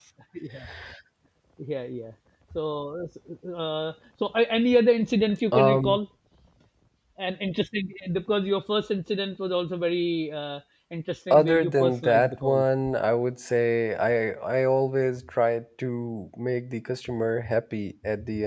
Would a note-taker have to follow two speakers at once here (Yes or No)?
Yes